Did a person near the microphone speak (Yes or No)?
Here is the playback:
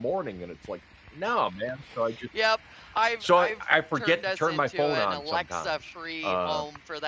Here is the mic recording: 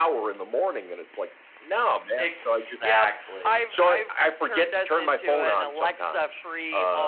Yes